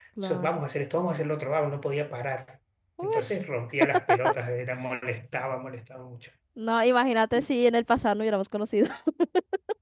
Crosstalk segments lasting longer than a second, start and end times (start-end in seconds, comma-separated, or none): none